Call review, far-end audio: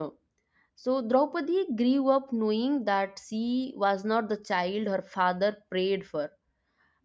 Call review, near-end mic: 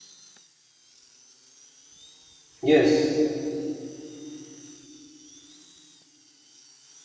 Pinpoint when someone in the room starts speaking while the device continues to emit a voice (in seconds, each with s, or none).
2.6 s